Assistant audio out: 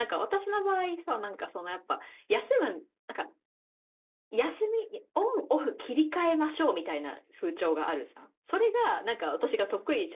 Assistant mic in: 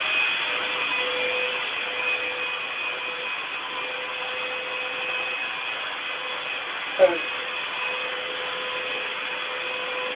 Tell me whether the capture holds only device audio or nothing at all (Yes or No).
No